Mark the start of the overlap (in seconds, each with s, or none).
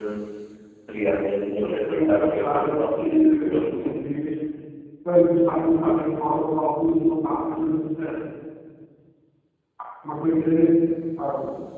1.6 s